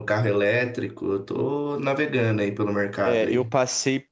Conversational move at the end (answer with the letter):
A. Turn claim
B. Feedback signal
A